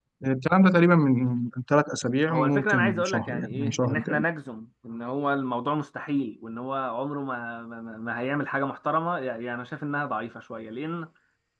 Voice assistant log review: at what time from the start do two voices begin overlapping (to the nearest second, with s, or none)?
2 s